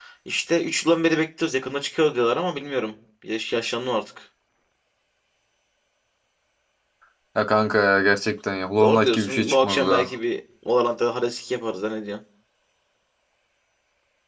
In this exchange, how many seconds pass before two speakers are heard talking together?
8.8 s

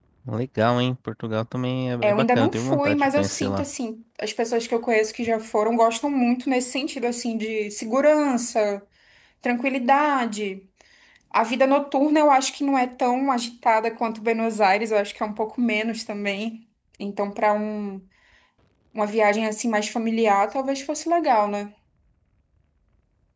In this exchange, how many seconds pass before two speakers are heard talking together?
2.0 s

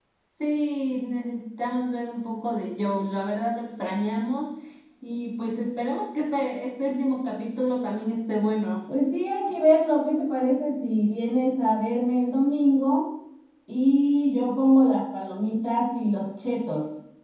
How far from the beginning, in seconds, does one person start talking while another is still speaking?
none

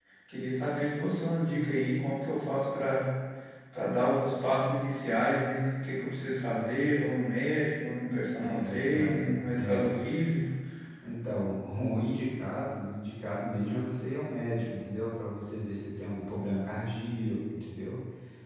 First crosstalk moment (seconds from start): 8.4 s

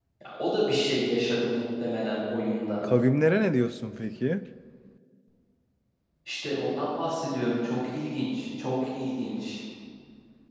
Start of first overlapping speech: none

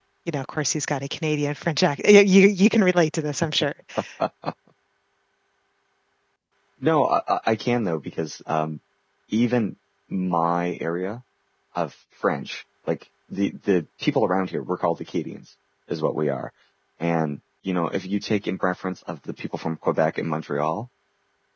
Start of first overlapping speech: none

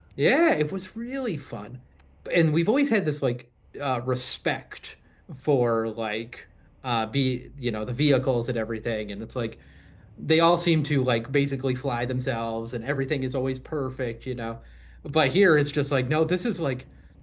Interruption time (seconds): none

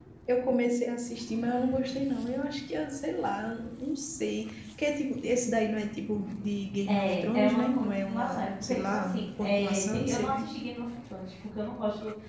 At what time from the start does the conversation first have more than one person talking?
6.9 s

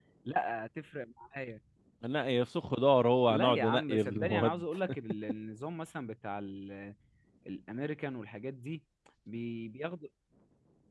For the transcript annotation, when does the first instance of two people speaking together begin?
3.3 s

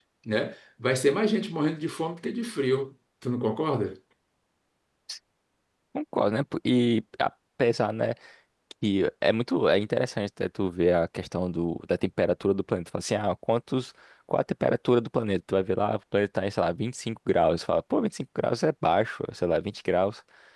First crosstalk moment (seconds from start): none

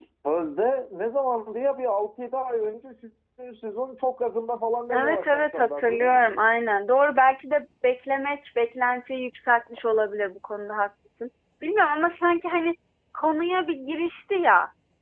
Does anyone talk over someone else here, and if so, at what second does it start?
4.9 s

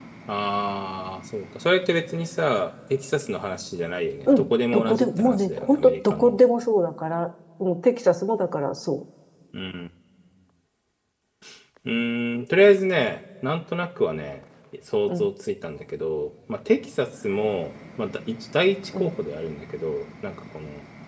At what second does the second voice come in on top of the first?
4.3 s

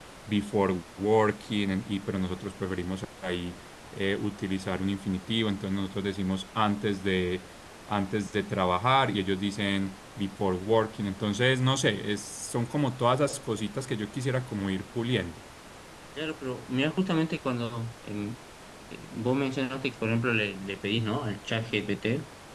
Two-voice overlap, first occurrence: none

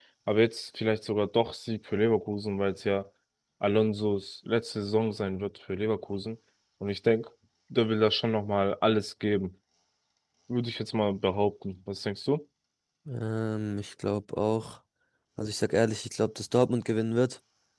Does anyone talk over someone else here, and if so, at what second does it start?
none

